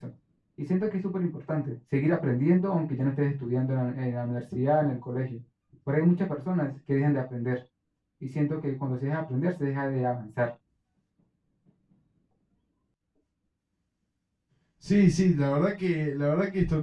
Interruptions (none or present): none